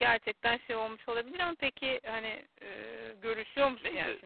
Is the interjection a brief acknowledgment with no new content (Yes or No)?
No